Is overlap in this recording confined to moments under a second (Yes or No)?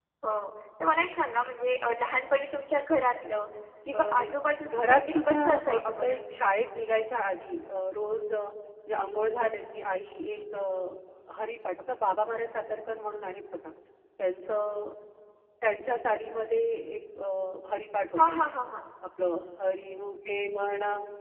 No